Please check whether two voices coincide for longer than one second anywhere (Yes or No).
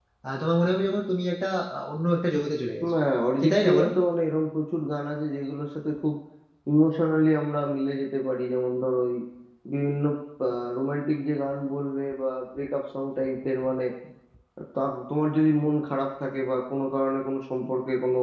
No